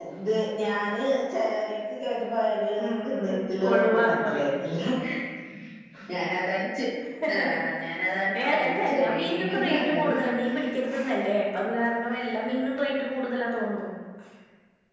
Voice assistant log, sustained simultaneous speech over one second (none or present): present